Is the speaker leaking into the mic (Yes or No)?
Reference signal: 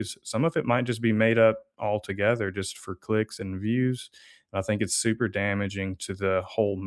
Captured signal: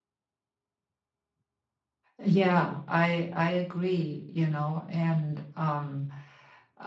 No